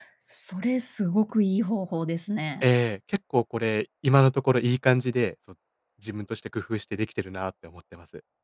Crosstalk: none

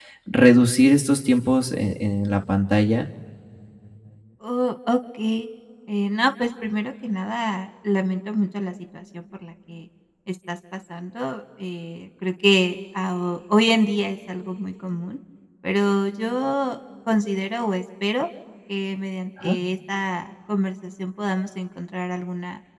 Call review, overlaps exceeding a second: none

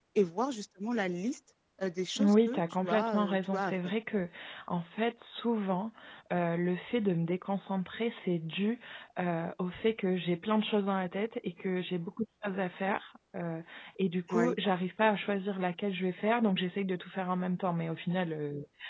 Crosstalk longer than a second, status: present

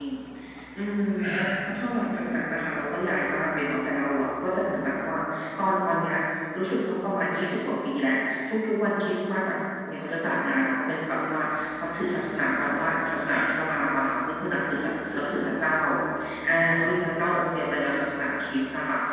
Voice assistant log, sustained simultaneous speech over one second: none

